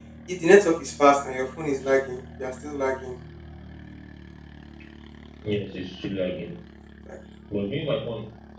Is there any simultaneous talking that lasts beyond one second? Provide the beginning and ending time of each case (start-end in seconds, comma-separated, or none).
none